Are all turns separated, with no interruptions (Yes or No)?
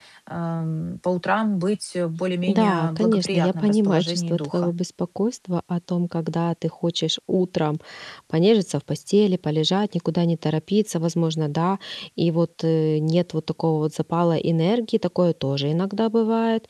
No